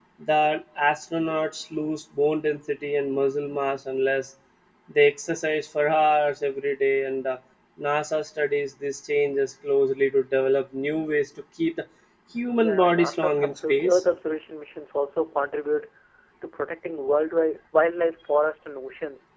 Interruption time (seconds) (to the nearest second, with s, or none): 12 s